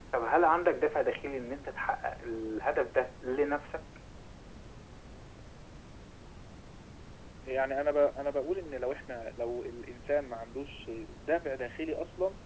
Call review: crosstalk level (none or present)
none